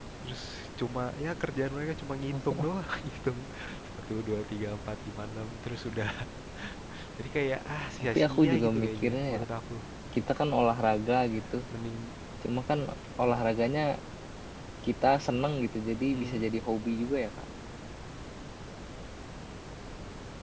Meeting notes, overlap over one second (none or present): present